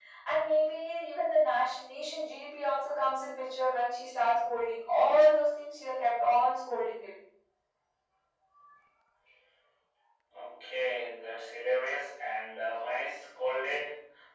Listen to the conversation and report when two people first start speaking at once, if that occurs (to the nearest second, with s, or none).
none